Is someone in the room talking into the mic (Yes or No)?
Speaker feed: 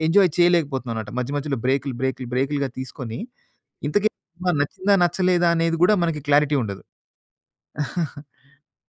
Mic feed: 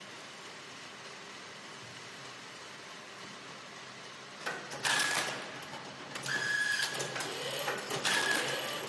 No